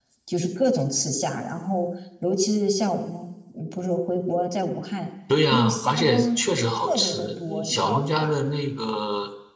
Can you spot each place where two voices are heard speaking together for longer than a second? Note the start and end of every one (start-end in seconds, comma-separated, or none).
5.5-8.3